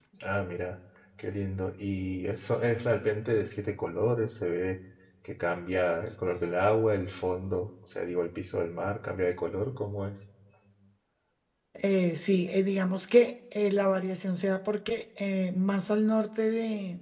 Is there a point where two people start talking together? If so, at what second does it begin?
none

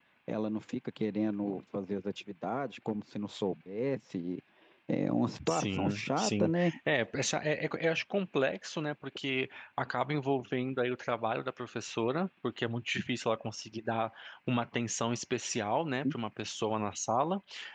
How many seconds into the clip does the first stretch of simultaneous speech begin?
5.5 s

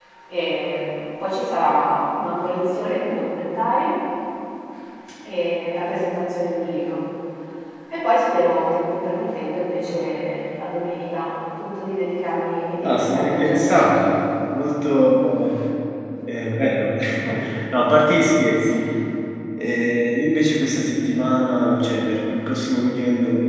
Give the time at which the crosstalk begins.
12.8 s

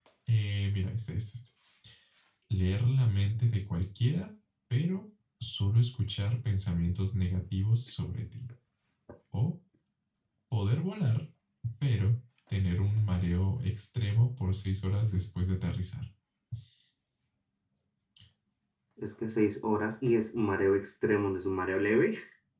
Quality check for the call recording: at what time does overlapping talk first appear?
none

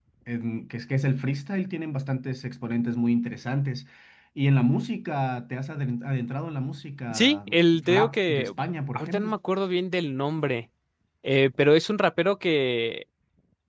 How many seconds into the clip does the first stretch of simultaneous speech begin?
7.1 s

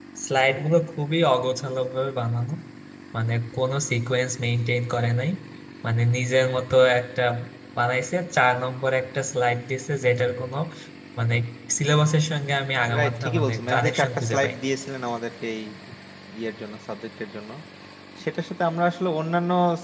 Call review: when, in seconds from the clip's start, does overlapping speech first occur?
12.9 s

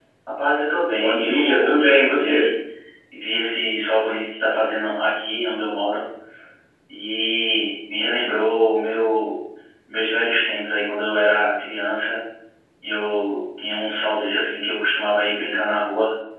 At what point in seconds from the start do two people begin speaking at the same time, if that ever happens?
1.0 s

